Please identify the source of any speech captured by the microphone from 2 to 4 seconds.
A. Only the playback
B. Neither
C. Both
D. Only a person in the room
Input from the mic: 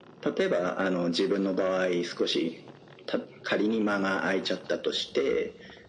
A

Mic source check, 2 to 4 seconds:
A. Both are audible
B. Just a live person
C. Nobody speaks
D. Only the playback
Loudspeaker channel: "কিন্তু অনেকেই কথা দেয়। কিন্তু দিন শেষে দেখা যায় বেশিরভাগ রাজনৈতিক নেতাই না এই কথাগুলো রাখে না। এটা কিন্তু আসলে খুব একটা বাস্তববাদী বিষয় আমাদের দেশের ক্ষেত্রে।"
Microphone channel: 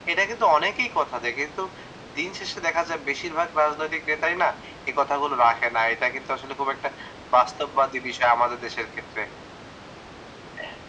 D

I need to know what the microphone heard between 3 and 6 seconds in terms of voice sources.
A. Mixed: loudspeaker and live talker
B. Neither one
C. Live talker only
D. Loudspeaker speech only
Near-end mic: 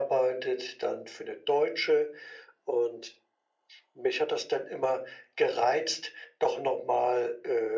D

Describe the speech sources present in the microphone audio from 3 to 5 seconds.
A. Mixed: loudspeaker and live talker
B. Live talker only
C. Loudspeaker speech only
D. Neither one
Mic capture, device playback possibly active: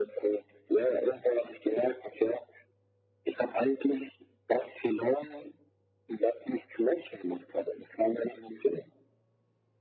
C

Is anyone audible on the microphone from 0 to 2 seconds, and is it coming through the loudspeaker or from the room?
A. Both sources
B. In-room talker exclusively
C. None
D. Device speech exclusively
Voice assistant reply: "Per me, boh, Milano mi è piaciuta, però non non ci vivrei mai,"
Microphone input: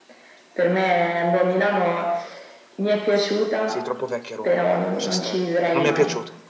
D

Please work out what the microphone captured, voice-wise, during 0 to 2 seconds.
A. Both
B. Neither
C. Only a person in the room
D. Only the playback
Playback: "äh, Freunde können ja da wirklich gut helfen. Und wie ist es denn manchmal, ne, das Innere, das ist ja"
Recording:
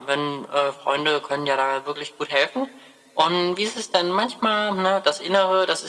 D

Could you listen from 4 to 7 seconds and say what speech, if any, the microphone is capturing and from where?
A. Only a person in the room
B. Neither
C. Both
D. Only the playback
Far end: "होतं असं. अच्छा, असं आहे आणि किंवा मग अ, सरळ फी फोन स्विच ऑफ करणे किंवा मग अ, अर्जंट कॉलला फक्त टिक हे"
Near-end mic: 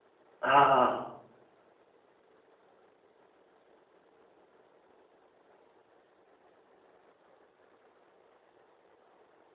B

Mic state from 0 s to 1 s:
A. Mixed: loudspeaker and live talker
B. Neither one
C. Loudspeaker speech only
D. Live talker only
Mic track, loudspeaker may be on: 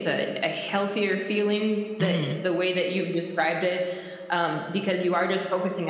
C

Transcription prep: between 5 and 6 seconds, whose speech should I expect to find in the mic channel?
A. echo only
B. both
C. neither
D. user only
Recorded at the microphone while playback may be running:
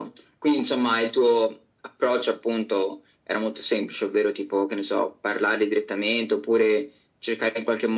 A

